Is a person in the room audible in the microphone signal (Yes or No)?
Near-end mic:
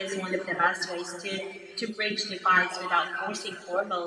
No